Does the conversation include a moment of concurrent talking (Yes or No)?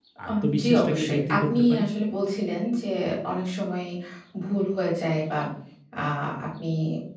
Yes